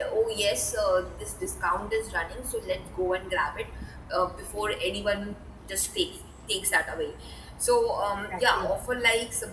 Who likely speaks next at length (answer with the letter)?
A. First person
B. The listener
A